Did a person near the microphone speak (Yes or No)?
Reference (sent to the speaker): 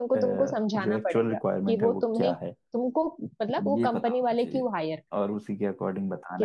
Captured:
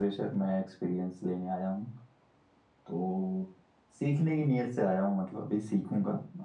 Yes